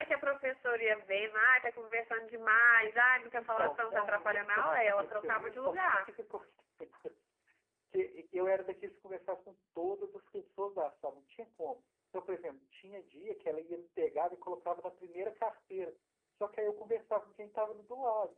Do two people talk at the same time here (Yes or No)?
Yes